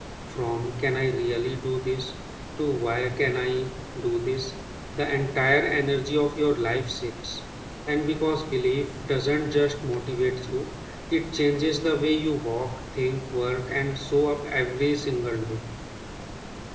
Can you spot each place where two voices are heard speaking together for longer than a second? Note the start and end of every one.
none

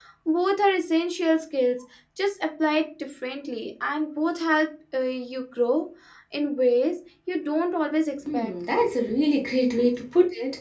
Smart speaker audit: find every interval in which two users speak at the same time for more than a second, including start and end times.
none

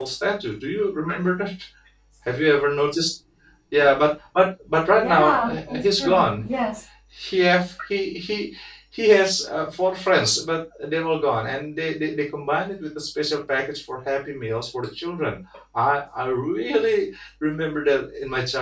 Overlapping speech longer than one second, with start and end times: 5.0-6.4

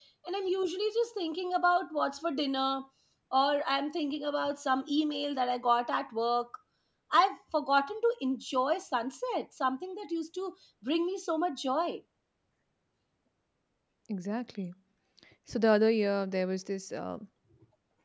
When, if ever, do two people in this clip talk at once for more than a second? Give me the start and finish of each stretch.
none

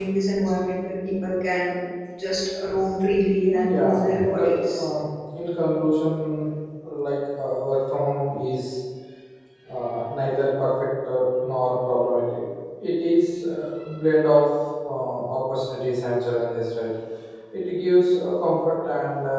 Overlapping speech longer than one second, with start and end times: 3.5-4.9

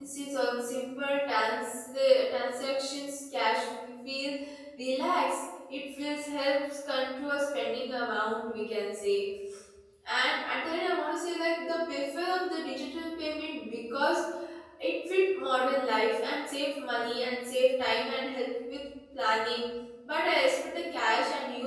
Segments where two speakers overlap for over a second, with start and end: none

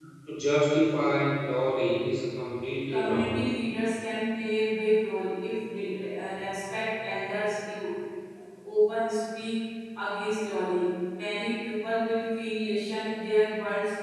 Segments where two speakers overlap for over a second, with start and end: none

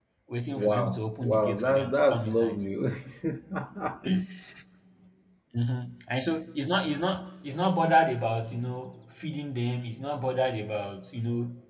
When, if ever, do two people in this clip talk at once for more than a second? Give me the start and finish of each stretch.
0.5-2.6

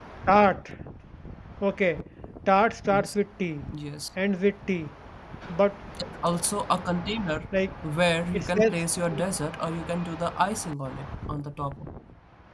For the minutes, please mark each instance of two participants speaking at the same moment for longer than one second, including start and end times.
none

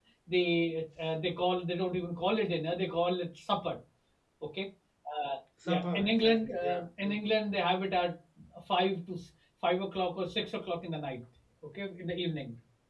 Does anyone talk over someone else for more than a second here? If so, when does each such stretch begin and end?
5.6-7.3

